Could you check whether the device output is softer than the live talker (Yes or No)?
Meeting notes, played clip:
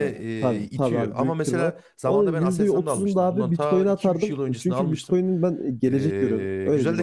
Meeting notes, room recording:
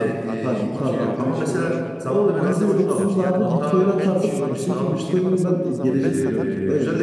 No